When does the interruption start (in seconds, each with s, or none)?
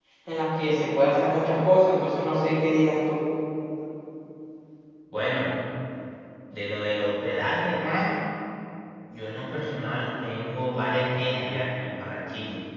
none